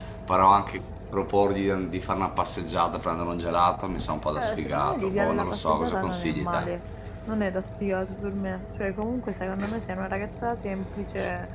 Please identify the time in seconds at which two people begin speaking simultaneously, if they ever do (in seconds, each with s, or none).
4.4 s